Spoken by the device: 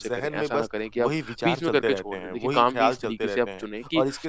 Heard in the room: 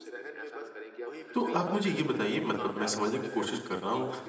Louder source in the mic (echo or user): user